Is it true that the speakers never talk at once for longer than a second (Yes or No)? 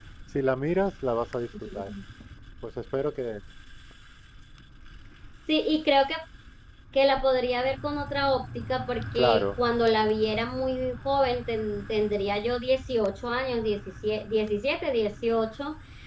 Yes